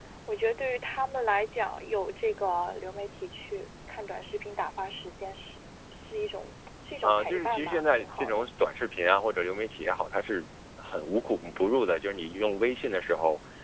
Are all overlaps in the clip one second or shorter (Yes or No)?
No